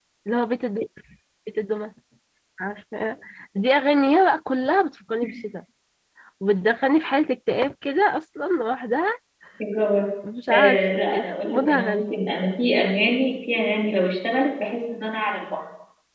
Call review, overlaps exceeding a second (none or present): present